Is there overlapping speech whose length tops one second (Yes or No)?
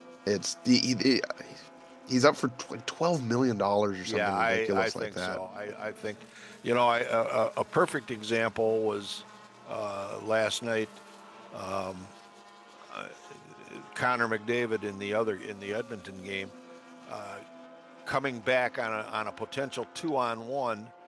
Yes